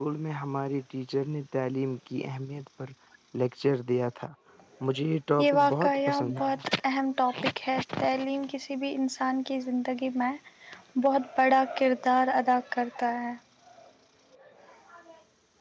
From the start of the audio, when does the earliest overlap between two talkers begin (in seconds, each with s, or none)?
5.4 s